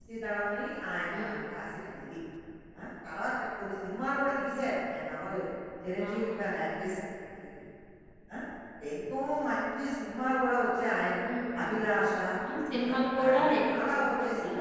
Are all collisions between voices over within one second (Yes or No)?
No